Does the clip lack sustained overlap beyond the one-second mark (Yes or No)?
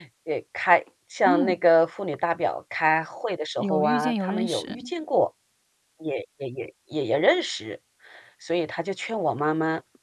No